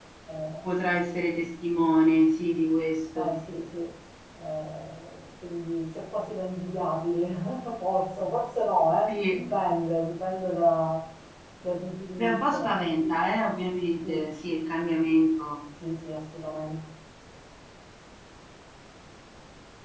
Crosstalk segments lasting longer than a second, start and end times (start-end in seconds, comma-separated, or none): none